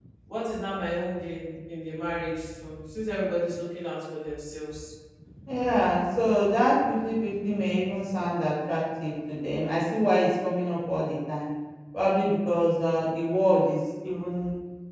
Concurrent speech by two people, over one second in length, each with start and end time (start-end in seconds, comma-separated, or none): none